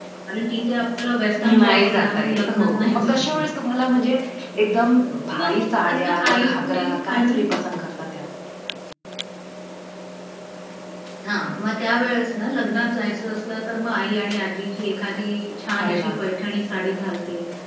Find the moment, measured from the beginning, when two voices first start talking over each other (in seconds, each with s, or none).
1.6 s